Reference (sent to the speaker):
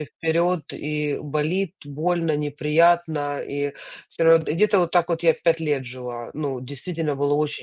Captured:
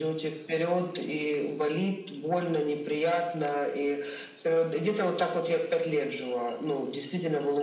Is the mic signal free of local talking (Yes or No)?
Yes